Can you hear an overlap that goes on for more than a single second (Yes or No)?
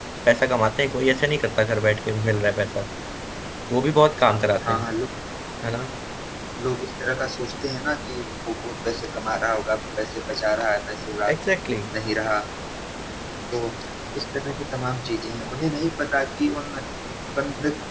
No